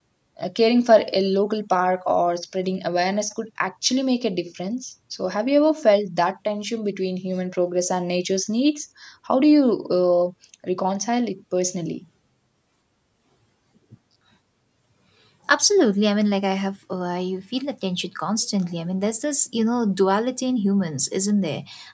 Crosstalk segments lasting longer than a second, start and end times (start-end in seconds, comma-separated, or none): none